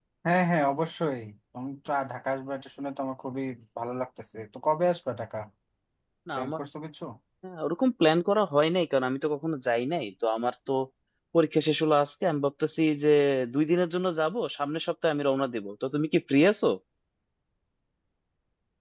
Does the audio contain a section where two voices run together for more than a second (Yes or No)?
No